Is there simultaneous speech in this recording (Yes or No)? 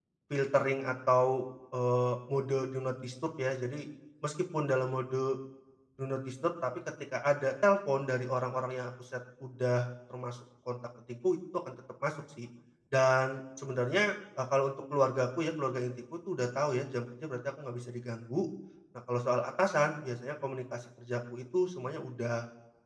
No